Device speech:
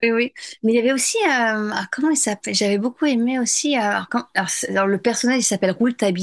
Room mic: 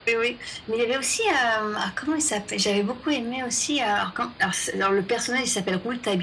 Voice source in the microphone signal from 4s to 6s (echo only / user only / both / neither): echo only